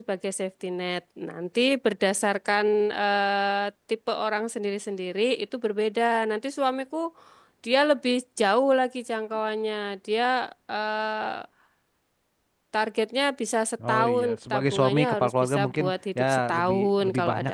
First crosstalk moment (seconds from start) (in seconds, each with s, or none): 13.8 s